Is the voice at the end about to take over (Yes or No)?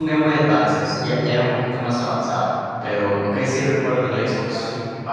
Yes